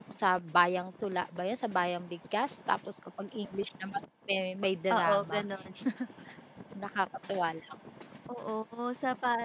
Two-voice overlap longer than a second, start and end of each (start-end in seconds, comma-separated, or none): none